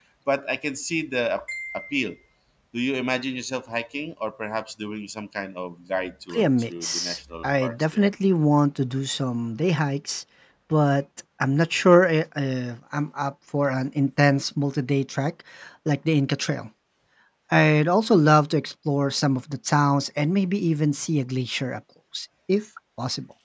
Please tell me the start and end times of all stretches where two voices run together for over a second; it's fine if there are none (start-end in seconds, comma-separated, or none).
6.3-8.1